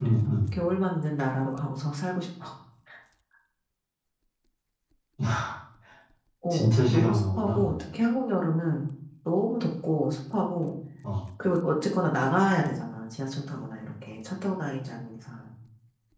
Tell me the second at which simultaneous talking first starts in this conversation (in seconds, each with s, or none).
6.5 s